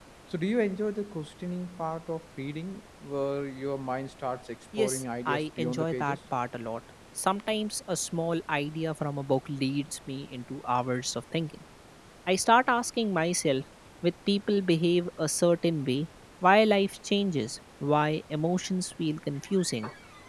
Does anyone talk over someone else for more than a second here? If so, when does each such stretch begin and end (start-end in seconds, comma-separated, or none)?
4.8-6.2